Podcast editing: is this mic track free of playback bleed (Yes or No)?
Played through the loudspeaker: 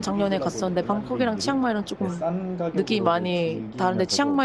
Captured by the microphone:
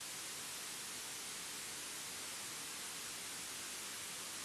Yes